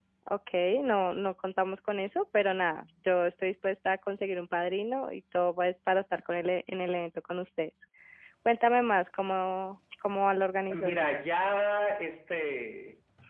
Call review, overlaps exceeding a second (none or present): none